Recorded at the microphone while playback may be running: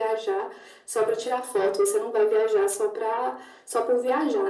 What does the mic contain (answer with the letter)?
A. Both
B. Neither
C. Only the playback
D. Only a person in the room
C